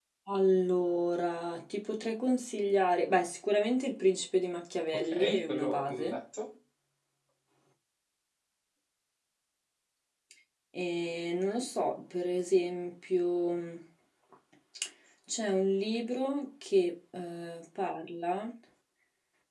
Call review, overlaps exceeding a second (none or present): present